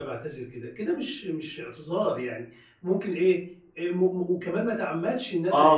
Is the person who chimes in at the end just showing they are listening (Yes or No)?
No